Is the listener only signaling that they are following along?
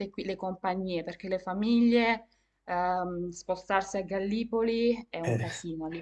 Yes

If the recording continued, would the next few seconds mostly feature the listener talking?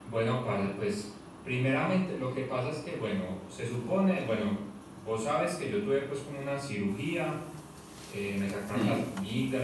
No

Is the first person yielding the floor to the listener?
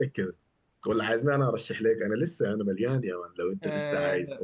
Yes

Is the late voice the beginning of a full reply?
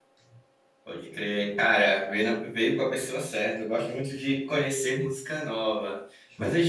No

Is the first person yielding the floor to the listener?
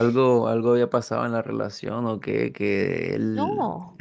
No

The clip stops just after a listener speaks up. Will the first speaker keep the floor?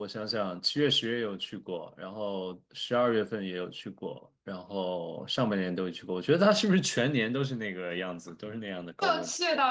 No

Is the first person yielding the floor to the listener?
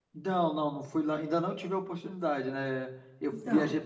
No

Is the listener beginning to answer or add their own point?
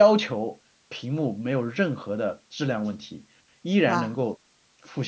No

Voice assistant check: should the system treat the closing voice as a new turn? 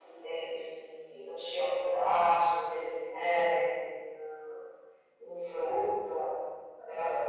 No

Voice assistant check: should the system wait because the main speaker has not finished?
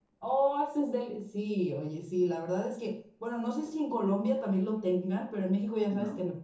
Yes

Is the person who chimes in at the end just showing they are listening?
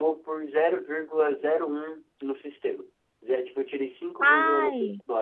Yes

